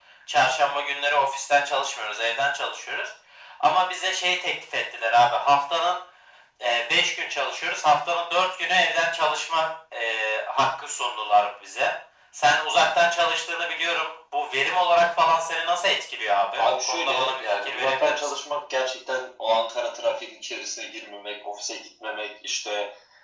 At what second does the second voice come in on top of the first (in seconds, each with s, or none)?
16.5 s